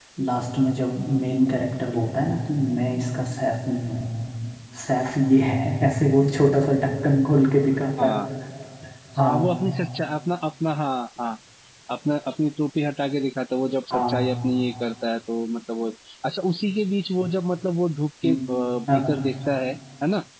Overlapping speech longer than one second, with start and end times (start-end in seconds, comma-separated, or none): none